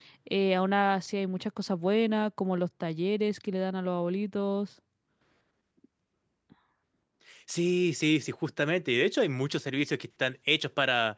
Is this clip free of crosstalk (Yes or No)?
Yes